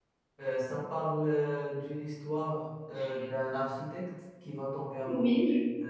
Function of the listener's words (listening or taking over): listening